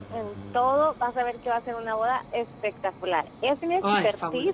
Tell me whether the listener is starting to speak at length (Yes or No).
No